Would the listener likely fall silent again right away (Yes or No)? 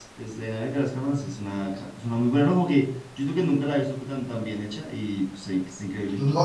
No